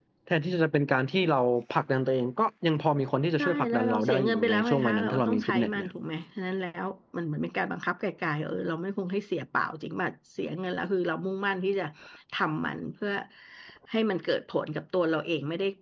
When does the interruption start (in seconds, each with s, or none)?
3.4 s